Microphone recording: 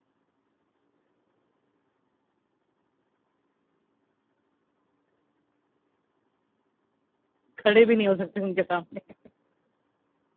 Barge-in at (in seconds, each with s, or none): 7.6 s